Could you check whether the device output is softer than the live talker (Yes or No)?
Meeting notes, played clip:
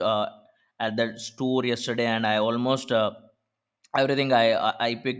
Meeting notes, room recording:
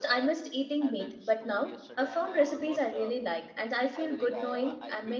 Yes